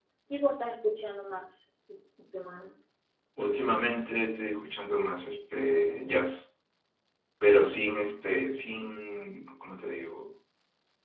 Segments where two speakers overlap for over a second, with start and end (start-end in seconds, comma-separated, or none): none